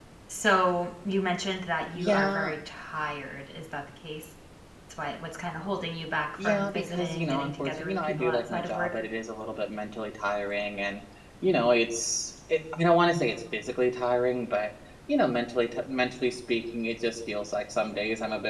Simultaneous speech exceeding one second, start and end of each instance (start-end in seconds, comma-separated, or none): 6.4-8.9